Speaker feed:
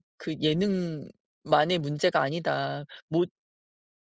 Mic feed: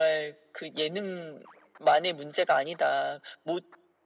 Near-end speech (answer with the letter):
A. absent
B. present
A